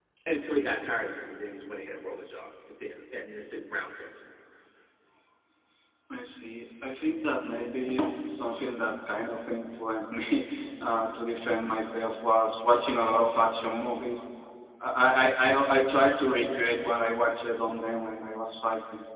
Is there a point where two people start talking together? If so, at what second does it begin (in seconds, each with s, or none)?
none